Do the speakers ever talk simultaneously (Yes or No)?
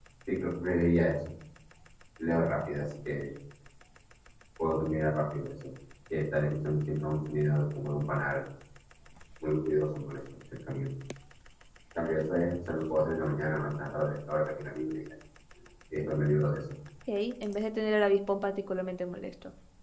No